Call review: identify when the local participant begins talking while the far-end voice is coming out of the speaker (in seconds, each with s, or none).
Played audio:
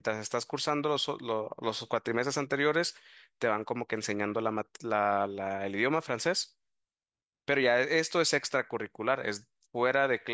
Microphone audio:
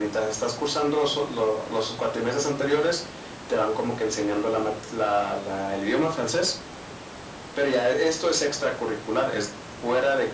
none